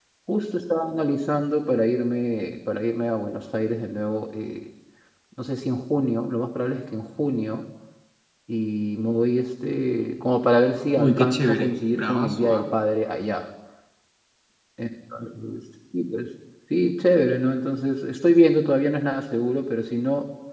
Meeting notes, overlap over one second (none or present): present